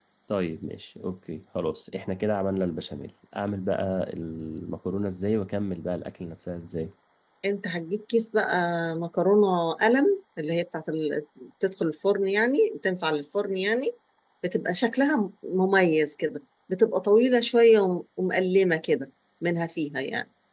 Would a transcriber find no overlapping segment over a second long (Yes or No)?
Yes